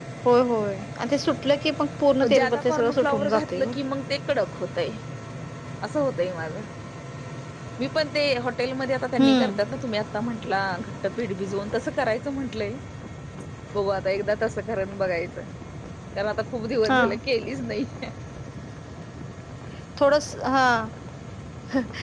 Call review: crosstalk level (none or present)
present